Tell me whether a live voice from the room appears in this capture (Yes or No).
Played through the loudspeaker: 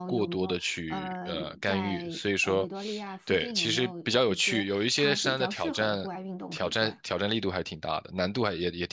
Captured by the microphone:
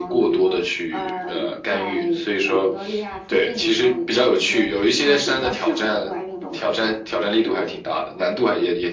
No